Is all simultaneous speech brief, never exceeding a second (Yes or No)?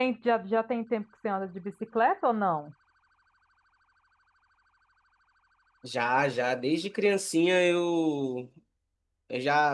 Yes